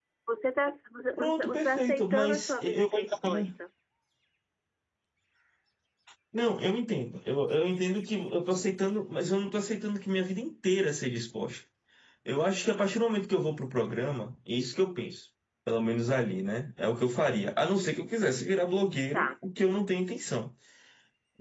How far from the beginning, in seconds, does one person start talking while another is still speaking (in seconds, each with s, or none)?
1.2 s